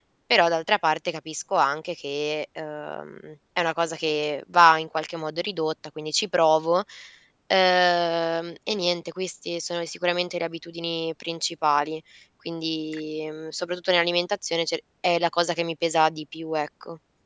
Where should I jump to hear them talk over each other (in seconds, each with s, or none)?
none